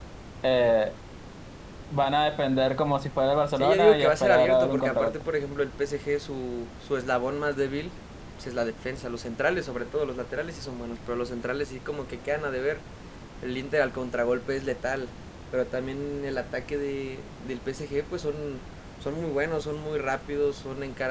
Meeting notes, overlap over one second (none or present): present